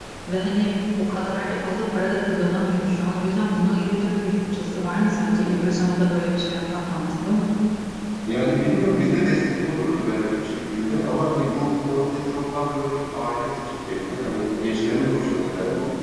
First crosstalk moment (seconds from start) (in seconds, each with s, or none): none